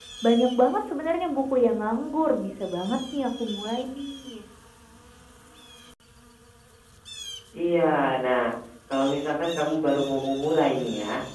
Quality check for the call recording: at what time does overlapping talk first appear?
none

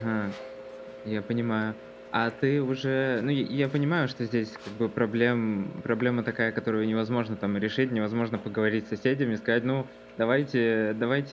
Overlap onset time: none

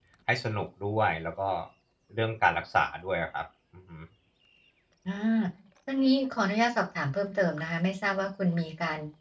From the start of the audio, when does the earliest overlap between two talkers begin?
none

